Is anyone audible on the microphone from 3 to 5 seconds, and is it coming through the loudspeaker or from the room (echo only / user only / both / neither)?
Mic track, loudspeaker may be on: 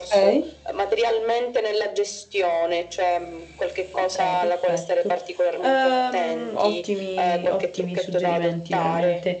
both